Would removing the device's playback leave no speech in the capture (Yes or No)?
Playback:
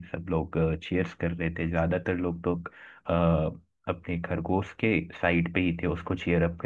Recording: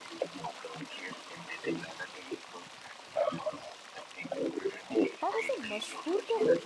No